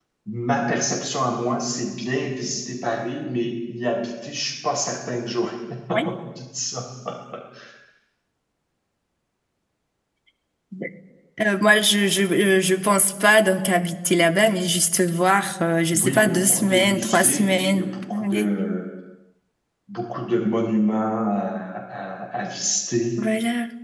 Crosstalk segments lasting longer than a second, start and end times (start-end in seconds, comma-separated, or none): 15.9-17.9